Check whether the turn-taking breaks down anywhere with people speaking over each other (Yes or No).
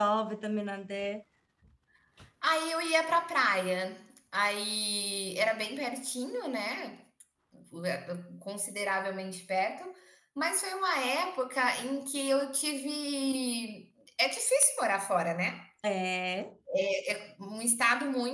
No